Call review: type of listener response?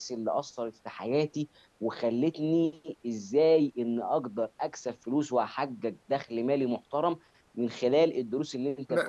taking over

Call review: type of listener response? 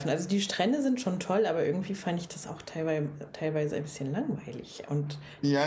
taking over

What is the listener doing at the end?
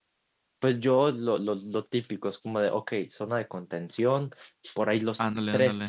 listening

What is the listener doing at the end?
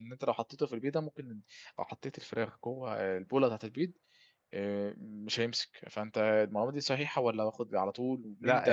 taking over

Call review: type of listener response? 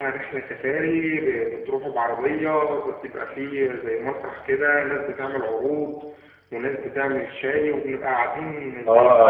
taking over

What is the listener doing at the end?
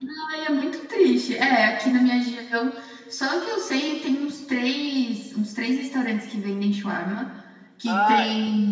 listening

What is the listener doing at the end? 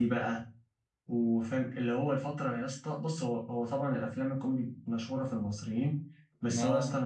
listening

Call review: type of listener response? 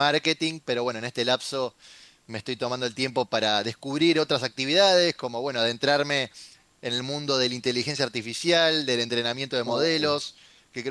listening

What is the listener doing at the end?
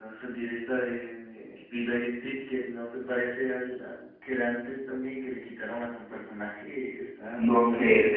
taking over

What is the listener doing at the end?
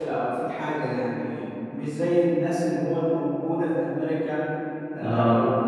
listening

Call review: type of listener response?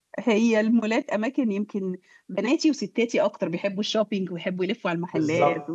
taking over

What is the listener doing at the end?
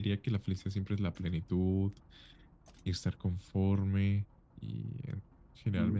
taking over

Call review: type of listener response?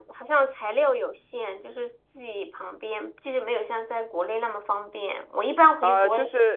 taking over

